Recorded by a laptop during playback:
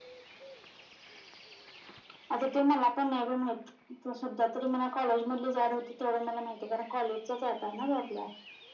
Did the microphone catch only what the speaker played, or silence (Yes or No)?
Yes